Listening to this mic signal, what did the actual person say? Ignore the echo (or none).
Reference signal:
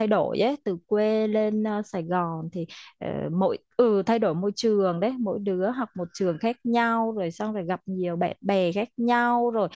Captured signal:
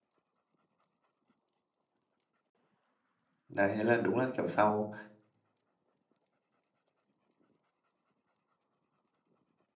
đấy thế là đúng là kiểu sau